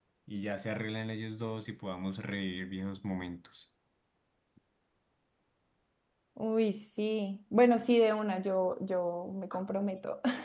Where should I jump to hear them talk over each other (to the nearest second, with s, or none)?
none